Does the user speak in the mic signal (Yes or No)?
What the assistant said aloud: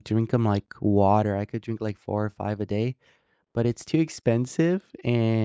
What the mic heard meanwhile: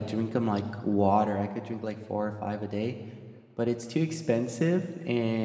No